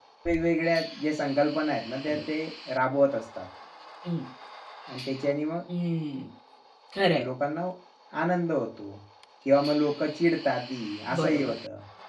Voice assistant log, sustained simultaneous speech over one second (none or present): none